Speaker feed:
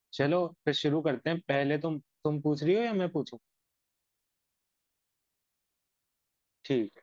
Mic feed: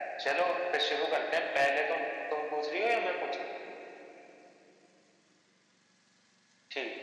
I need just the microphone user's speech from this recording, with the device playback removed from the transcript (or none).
none